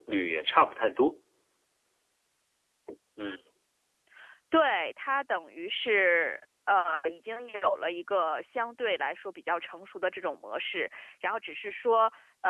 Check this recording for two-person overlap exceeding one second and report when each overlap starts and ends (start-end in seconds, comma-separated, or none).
none